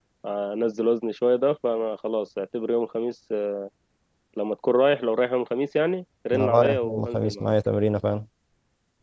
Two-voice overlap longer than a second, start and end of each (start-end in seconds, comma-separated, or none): 6.3-7.5